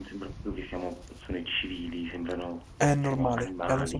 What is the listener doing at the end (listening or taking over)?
taking over